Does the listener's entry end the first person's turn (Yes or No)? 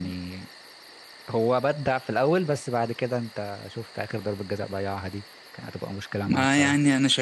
Yes